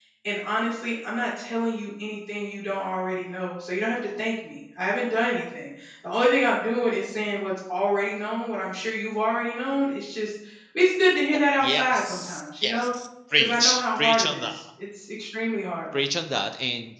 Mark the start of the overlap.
11.3 s

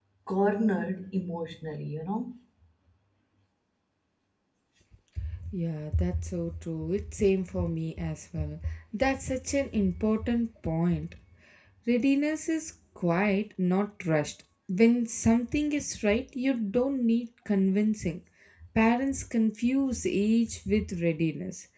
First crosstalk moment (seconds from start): none

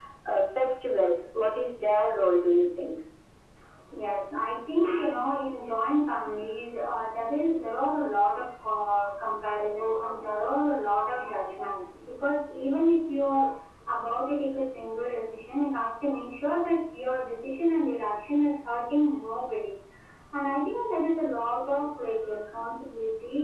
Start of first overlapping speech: none

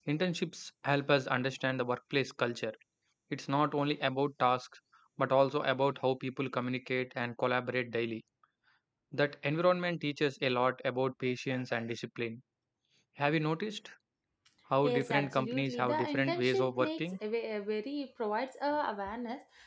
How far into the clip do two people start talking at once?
14.8 s

